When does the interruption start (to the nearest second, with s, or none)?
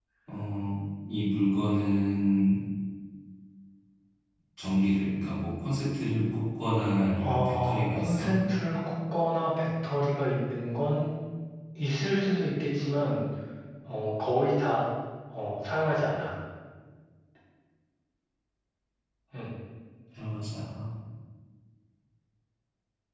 7 s